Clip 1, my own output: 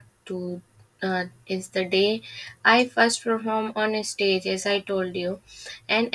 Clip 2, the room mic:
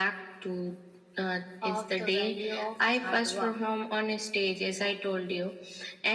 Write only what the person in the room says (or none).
of the value of hard work.